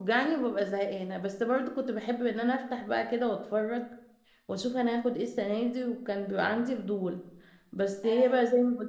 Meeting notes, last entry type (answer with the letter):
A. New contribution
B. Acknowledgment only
B